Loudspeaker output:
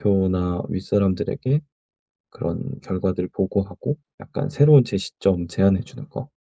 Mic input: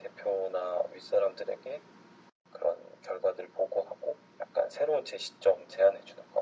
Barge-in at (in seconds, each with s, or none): none